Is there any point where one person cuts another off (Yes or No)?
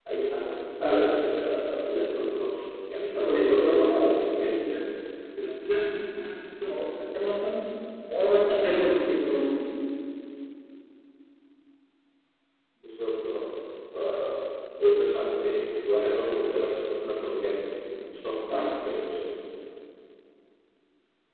Yes